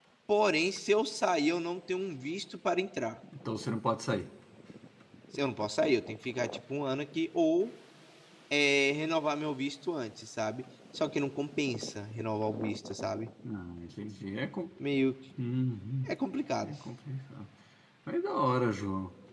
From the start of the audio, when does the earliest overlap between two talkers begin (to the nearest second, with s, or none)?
none